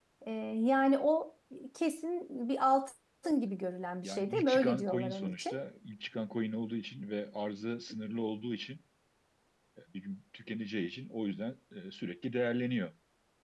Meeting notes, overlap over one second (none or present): present